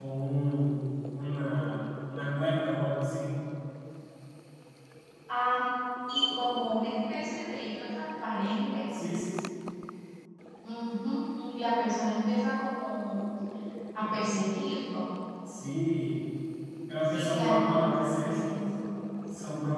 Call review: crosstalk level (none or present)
present